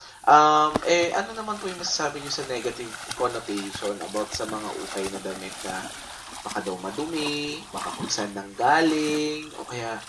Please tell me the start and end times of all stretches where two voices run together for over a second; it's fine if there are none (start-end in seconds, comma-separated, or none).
none